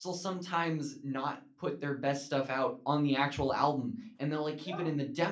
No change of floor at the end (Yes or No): Yes